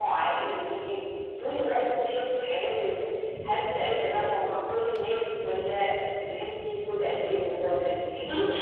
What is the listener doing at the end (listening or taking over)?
taking over